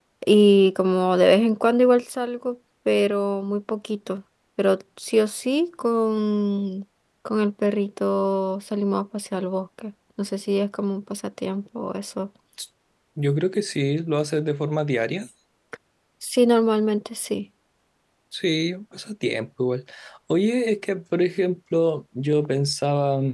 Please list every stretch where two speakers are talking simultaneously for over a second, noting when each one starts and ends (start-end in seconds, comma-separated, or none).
none